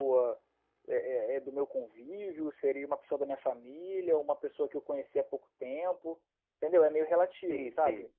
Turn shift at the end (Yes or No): Yes